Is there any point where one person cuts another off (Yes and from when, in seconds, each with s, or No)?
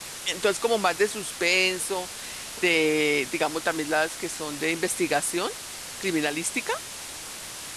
No